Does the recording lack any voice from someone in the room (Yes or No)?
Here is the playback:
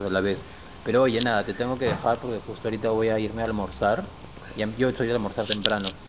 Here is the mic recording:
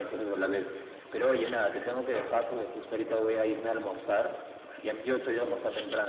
Yes